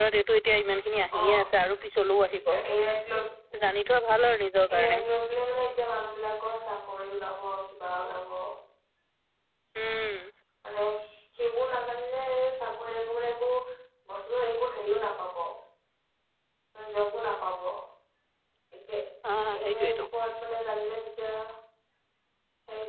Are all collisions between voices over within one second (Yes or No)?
Yes